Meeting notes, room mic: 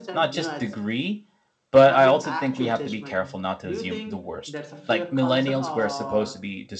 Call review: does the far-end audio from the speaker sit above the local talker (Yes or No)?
No